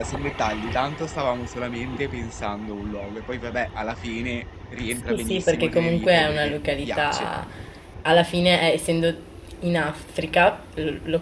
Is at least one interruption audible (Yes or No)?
Yes